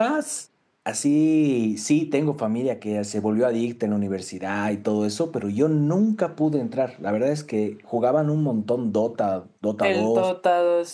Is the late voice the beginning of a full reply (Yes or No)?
Yes